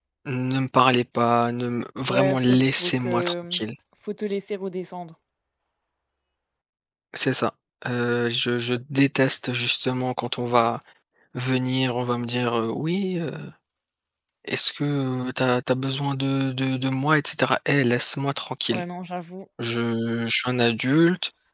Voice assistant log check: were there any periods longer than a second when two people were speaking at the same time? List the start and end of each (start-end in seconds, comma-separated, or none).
2.1-3.6